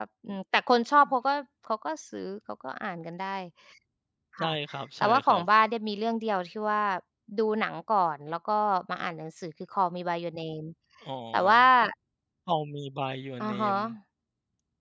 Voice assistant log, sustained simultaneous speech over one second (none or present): none